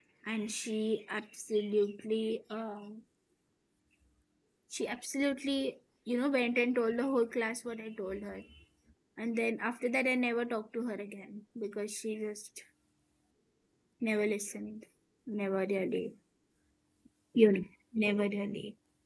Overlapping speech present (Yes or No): No